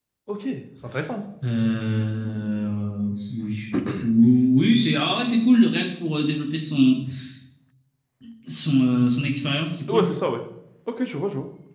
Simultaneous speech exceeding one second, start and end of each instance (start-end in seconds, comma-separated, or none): none